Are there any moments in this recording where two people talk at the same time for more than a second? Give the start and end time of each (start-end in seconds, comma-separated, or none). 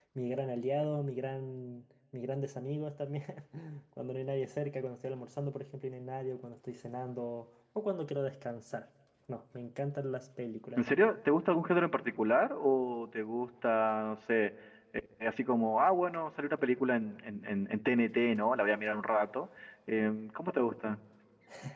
none